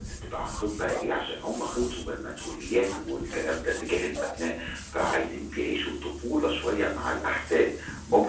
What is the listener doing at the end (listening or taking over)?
listening